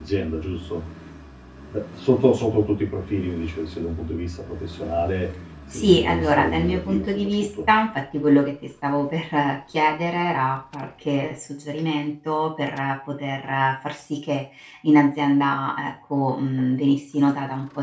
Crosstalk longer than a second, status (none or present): present